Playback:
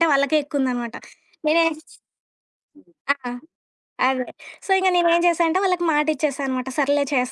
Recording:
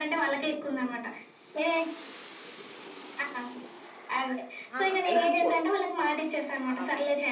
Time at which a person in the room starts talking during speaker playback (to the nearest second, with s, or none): 5 s